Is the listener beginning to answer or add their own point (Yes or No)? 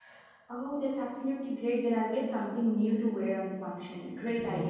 Yes